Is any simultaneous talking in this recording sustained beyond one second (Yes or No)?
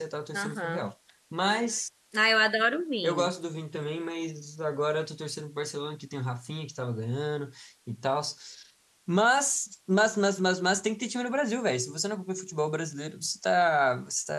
No